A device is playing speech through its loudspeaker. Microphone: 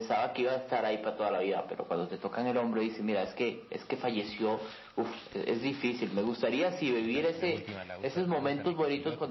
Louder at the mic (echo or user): echo